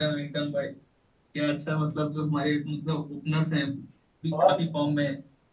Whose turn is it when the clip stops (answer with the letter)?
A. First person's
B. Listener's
A